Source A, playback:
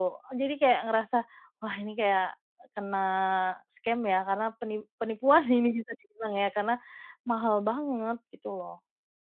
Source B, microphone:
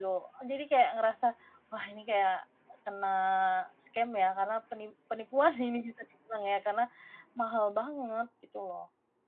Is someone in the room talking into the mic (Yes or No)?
No